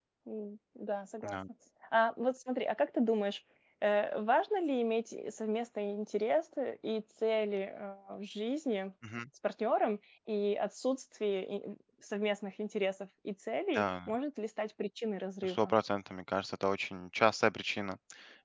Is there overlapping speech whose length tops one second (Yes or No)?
No